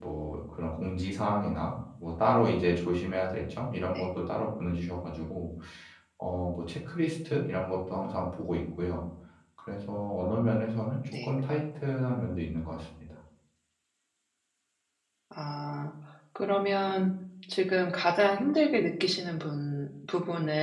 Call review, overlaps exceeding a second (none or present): none